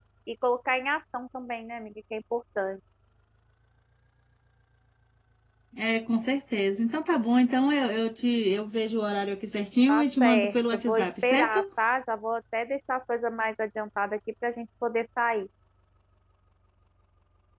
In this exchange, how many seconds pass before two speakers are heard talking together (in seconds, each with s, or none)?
9.9 s